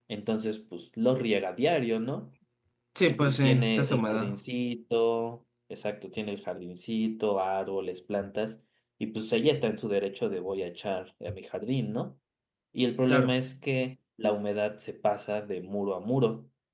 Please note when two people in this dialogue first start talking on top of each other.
3.0 s

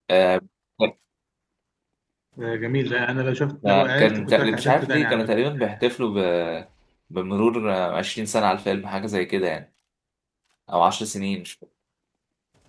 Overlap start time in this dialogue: 3.6 s

